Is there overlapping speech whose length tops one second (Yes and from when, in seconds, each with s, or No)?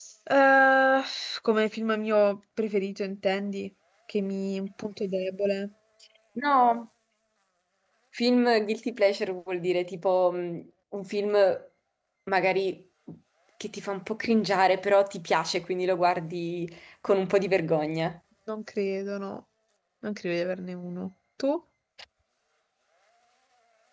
No